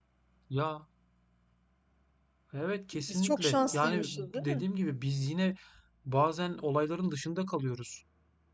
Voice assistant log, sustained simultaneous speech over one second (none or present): present